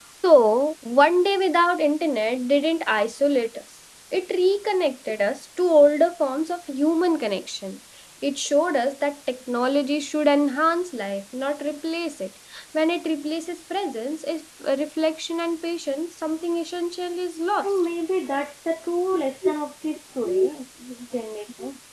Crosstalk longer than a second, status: none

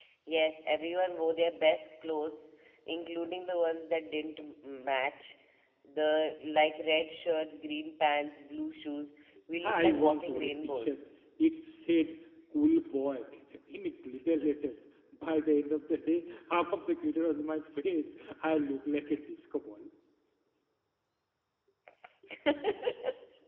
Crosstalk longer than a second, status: present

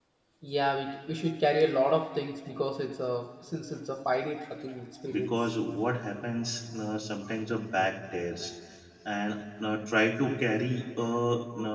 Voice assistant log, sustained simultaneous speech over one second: none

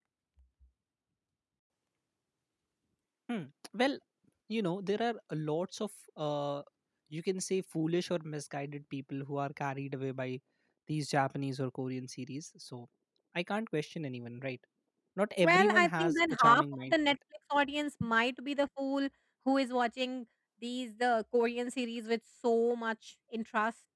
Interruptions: present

